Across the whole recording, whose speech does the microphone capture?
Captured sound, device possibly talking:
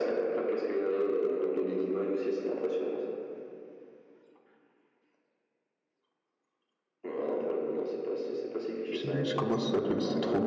both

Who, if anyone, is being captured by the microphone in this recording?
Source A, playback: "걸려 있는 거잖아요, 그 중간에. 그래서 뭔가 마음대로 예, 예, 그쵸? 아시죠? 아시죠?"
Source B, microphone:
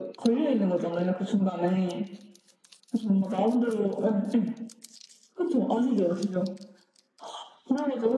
echo only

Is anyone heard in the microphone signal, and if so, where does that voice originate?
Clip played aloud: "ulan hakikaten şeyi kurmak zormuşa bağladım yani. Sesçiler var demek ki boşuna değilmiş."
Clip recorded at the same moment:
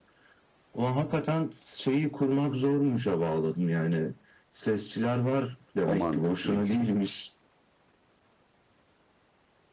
both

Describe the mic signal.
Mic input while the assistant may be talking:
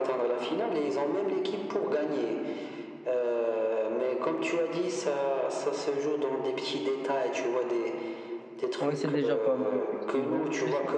both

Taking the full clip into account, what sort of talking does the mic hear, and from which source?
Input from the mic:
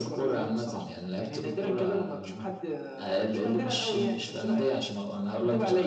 echo only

